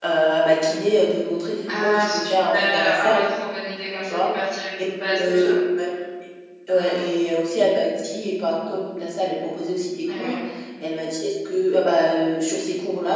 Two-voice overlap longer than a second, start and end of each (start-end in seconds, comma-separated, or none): 1.7-3.2